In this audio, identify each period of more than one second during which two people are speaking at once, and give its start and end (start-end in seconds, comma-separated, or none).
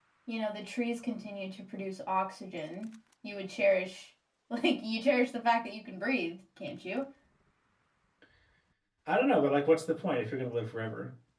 none